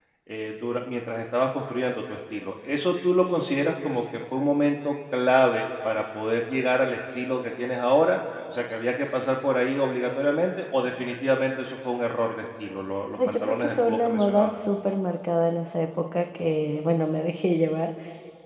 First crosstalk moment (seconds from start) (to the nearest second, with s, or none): 13 s